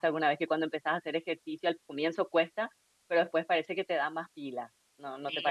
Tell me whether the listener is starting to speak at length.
Yes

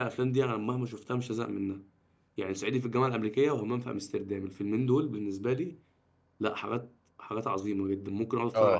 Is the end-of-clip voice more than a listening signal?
Yes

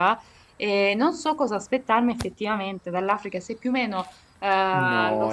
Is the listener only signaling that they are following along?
No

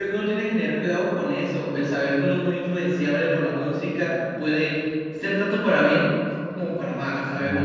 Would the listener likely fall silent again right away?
No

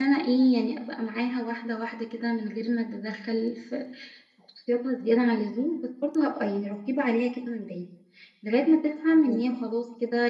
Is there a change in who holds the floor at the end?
No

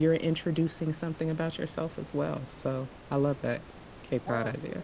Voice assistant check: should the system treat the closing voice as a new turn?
Yes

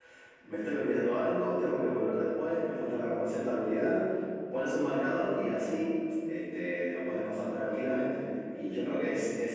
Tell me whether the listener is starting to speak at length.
No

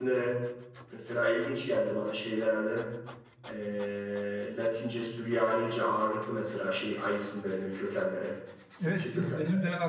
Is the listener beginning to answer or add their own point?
Yes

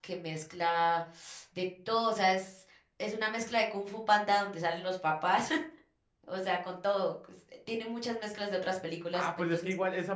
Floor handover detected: Yes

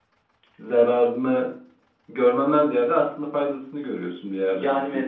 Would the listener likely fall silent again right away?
No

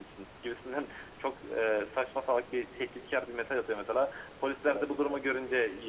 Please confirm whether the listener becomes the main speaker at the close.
No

